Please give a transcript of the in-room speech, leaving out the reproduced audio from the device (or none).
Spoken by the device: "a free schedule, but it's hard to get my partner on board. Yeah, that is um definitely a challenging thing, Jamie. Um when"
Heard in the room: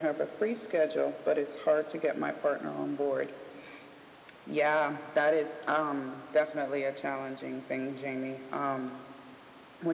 none